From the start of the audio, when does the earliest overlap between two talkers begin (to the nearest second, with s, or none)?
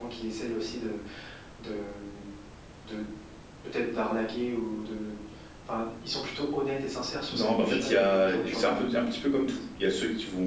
7 s